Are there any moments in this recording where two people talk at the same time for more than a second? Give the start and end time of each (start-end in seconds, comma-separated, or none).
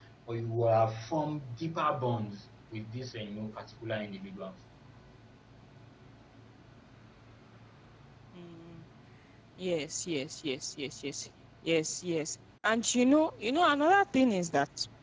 none